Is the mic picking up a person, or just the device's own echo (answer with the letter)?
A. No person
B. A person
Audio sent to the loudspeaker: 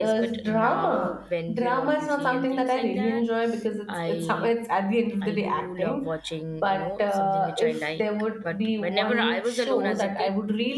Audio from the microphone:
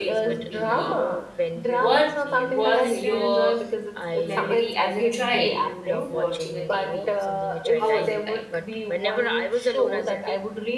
B